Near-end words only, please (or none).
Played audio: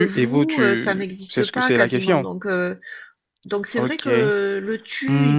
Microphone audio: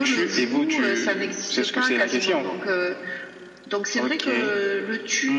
none